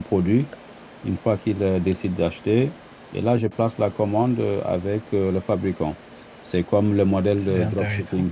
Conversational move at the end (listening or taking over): listening